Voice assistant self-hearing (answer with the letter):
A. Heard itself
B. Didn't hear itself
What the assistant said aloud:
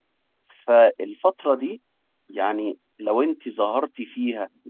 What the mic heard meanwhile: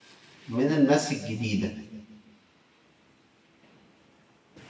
B